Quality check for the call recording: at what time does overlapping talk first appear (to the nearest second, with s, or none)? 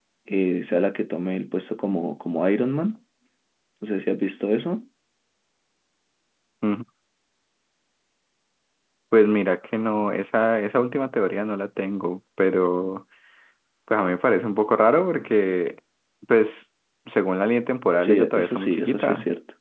18 s